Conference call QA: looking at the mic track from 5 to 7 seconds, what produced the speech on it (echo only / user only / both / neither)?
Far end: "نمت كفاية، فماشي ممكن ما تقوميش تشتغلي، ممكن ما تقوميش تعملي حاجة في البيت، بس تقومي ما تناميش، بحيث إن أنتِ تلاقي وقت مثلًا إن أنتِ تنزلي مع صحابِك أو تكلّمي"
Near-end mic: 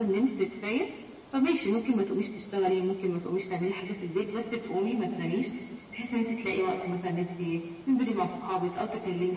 echo only